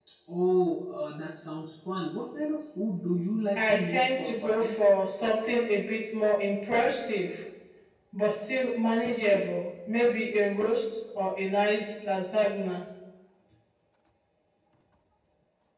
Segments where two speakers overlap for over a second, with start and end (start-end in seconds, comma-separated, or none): 3.6-4.8